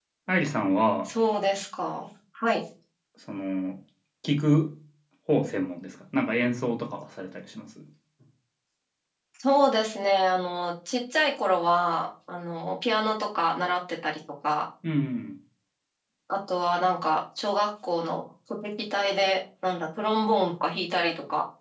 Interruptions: none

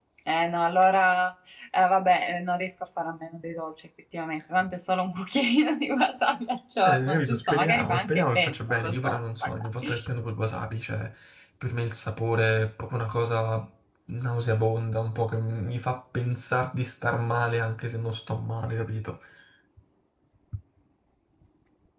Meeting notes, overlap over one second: present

